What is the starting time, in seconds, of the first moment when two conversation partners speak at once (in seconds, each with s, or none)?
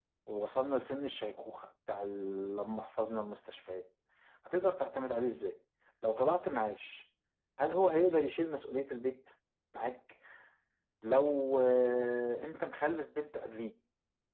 none